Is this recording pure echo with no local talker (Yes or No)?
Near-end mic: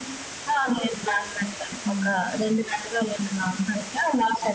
No